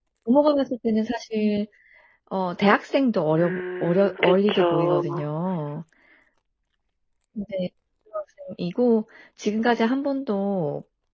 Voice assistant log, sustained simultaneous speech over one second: present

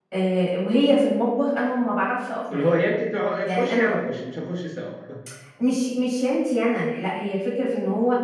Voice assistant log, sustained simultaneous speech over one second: none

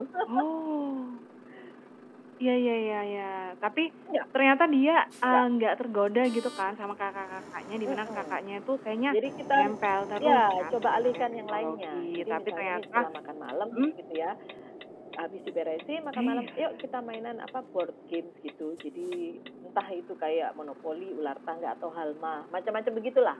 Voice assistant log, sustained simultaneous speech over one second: present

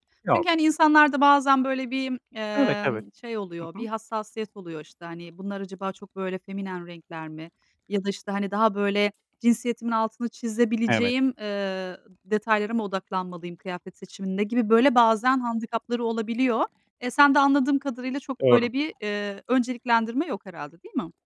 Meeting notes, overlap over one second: none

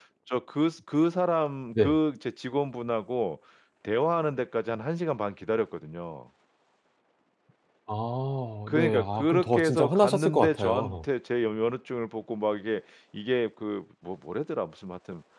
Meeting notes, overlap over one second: present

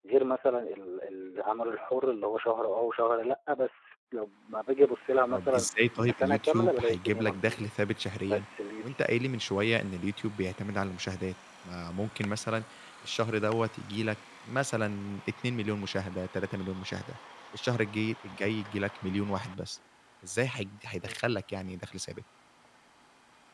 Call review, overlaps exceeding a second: present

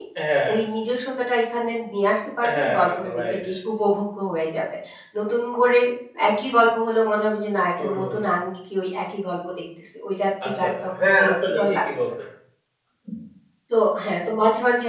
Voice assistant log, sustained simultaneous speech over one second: present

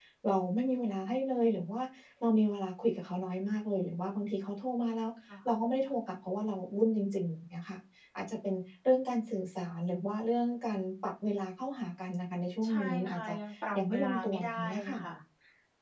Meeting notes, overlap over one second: present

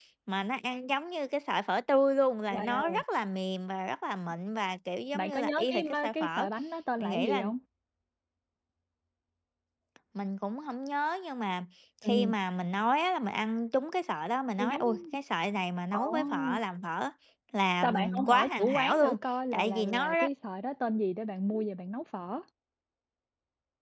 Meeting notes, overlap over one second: present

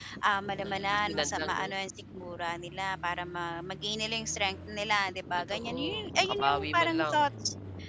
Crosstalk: present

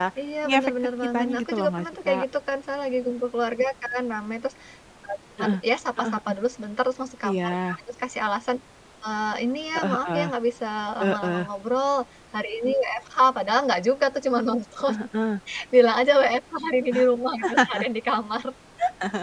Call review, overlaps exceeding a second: present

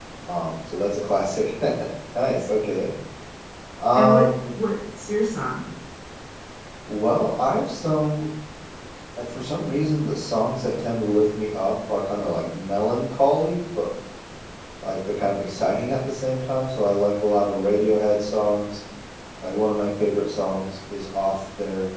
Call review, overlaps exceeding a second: none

